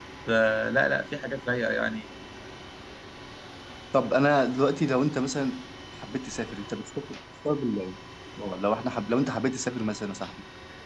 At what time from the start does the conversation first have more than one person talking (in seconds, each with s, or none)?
none